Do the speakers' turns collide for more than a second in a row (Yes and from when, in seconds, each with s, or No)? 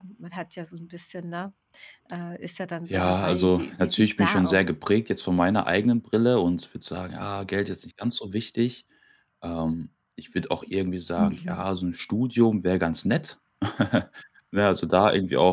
Yes, from 2.9 s